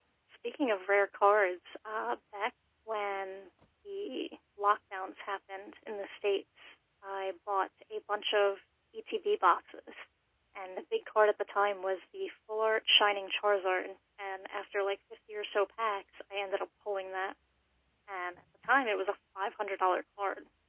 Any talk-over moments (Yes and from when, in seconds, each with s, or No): No